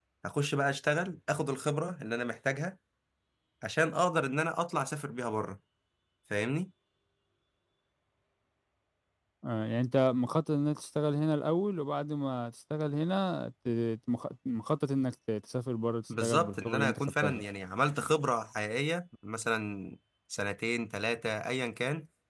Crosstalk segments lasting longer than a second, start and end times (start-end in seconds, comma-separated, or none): 16.1-17.4